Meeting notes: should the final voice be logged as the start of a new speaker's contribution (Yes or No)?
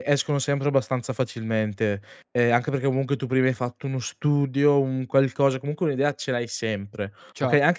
No